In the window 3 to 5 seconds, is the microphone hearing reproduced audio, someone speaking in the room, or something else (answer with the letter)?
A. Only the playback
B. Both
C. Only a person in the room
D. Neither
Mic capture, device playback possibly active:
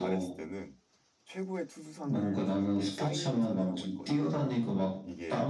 B